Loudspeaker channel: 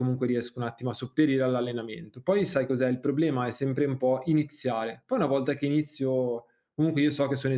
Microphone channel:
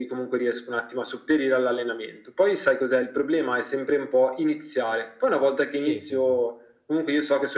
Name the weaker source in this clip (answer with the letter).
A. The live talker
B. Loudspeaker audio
A